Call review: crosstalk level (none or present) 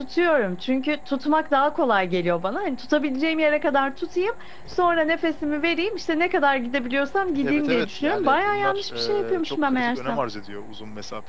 present